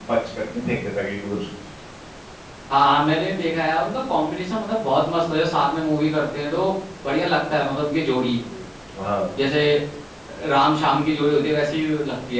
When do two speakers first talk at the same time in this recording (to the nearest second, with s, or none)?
none